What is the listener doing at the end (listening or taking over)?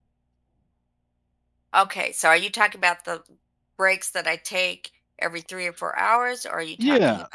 taking over